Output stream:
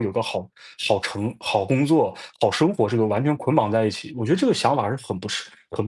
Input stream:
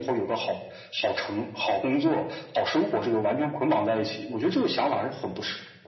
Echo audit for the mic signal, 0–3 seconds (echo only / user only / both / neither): echo only